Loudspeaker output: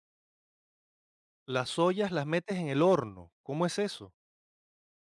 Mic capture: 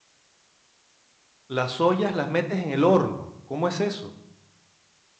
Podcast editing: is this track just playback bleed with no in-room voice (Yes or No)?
Yes